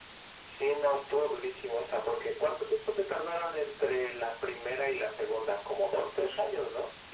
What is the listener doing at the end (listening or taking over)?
taking over